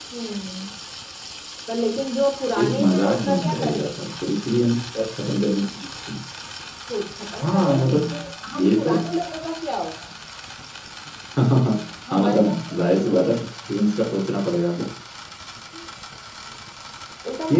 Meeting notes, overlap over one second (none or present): present